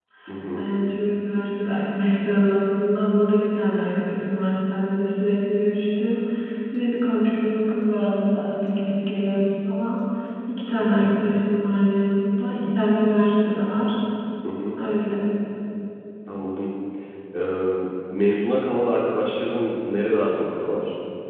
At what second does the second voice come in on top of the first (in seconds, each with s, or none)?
none